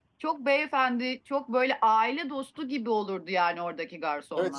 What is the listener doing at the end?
taking over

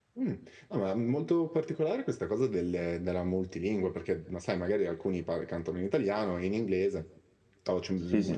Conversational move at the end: listening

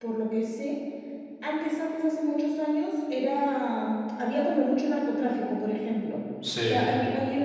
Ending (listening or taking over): listening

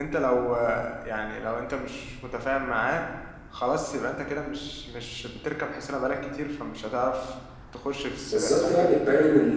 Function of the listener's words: taking over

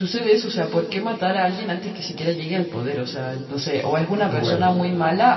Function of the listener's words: listening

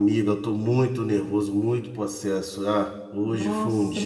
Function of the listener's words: taking over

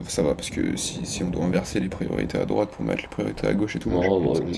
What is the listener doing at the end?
taking over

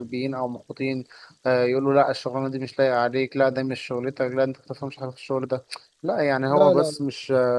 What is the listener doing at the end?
listening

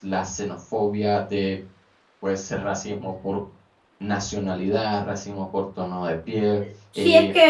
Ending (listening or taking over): taking over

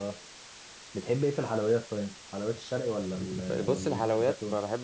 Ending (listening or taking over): taking over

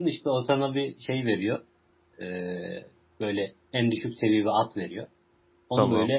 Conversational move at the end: listening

